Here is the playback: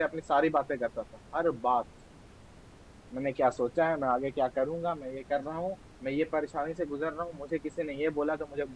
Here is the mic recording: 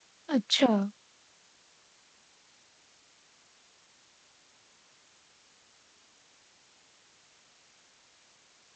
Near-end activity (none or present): present